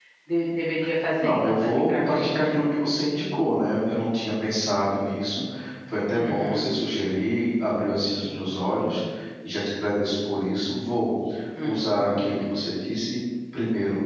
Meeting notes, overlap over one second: present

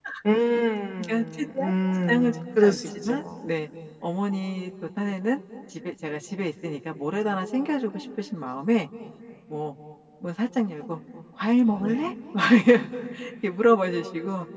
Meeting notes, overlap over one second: present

